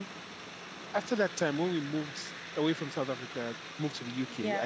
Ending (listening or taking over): listening